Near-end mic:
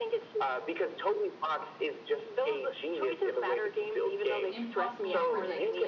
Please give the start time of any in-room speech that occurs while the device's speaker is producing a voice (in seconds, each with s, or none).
4.5 s